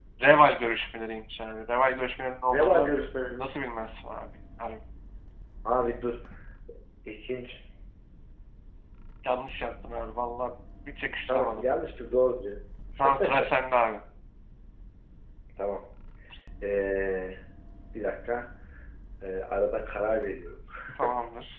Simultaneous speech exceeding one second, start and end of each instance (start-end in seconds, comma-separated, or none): none